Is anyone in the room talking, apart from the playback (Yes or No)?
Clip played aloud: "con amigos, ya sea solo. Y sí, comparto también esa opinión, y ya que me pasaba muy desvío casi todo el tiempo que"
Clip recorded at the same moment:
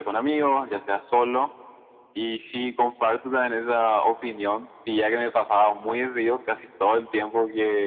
No